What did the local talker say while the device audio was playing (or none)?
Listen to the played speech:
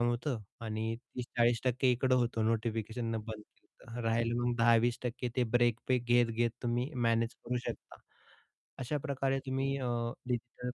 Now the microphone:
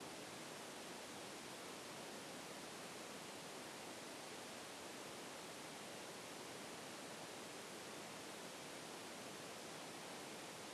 none